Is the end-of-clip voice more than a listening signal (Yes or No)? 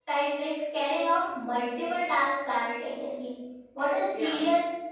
No